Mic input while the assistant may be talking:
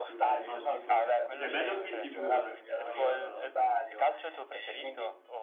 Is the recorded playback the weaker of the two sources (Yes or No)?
No